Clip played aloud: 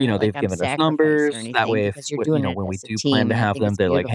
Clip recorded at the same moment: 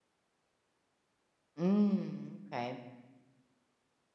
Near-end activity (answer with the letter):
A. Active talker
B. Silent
A